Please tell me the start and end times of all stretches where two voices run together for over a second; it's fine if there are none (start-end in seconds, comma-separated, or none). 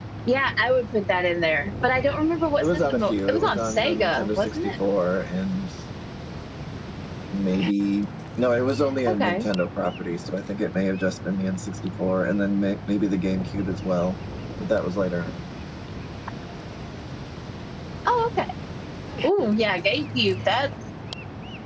2.6-4.7